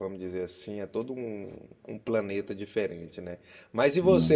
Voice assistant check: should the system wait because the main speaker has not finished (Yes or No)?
Yes